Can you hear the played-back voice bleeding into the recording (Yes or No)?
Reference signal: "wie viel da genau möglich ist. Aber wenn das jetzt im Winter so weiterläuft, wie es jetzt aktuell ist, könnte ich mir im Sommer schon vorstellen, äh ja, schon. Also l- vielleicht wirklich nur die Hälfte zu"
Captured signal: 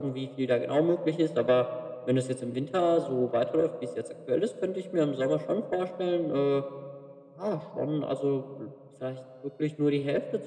Yes